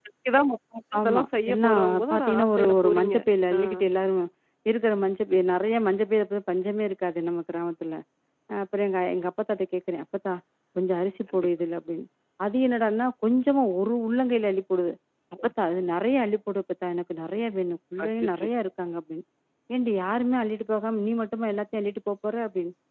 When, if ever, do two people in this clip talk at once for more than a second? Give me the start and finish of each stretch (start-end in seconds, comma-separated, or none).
1.0-3.1